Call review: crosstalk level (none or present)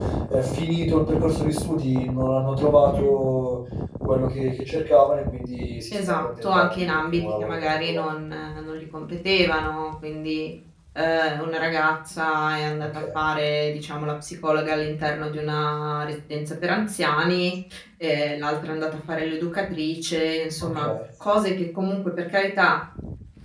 present